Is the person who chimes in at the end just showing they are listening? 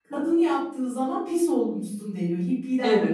No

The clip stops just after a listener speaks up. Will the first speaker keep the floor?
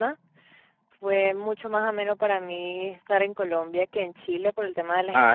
No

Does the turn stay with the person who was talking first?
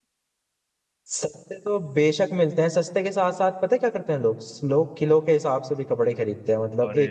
Yes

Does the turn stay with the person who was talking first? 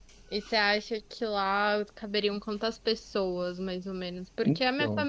Yes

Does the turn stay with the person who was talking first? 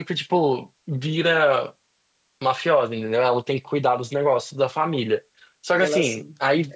Yes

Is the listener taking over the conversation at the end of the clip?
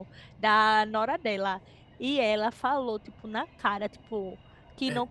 No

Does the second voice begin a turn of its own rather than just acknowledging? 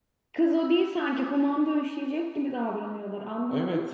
Yes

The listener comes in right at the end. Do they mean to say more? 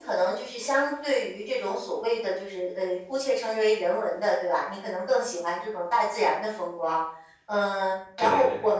No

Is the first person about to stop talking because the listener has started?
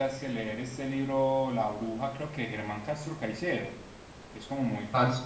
No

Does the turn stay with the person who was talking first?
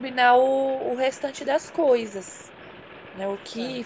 No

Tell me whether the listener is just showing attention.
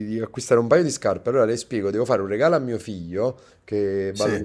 Yes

